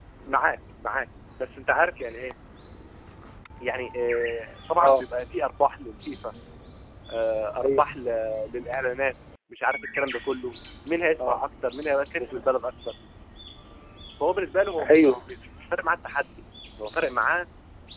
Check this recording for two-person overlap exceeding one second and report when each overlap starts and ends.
none

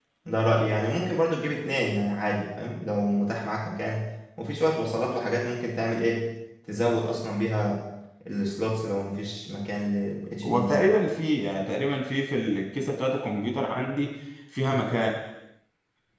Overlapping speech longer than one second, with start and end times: none

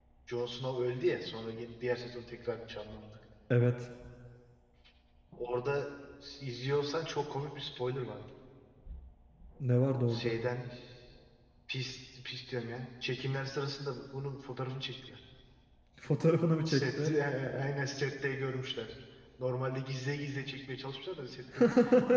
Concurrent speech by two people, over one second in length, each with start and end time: none

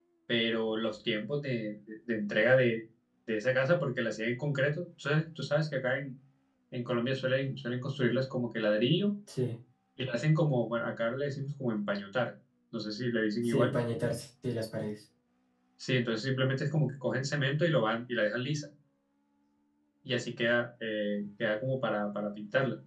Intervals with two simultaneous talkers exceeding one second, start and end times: none

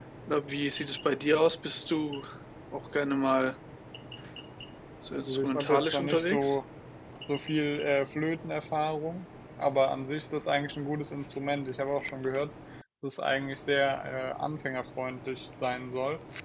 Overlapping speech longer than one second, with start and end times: 5.3-6.5

